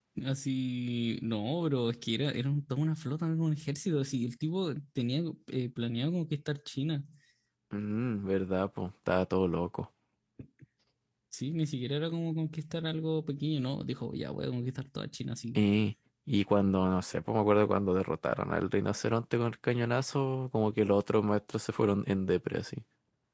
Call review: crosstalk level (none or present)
none